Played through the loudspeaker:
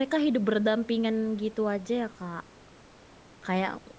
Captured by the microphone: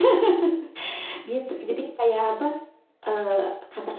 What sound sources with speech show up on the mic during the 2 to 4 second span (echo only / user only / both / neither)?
user only